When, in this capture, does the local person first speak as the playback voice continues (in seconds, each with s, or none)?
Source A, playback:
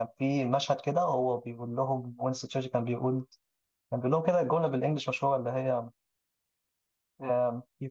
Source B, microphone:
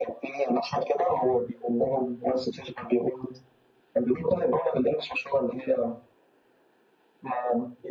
none